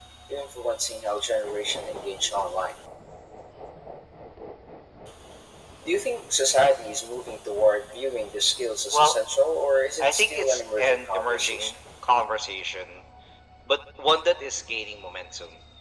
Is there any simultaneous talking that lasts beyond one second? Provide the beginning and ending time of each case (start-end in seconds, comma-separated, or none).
10.0-11.7